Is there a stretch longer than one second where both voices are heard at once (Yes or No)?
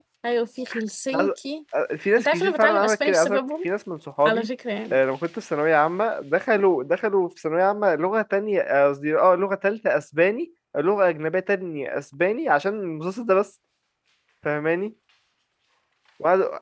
Yes